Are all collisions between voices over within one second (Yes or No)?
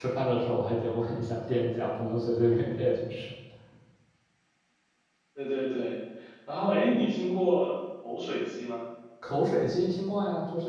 Yes